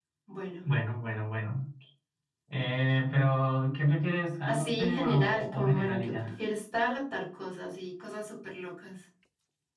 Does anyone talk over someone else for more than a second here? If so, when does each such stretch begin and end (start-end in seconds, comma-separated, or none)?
4.4-6.1